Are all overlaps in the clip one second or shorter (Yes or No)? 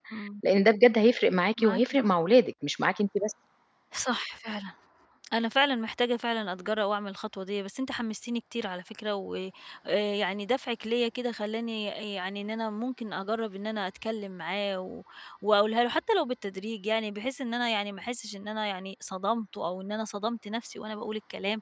Yes